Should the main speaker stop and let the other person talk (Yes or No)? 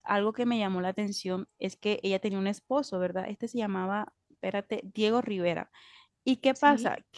No